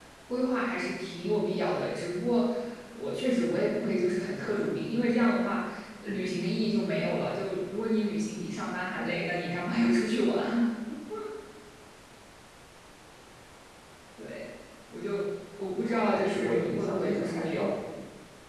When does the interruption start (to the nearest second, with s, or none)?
16 s